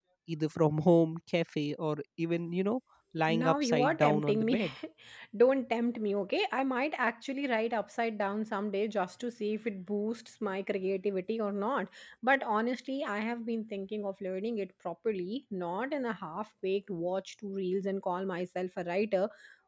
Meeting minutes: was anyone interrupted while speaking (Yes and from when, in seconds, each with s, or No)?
Yes, from 3.3 s